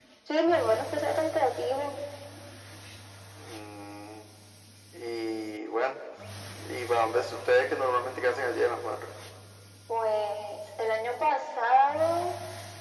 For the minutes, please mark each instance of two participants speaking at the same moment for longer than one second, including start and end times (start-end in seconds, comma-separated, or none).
none